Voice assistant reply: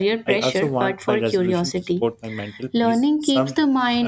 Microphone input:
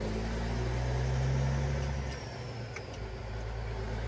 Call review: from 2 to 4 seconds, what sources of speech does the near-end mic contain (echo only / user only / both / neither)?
neither